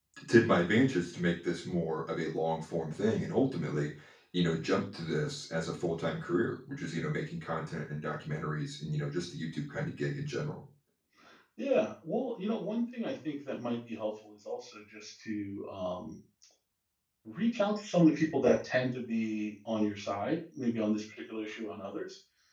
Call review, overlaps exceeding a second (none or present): none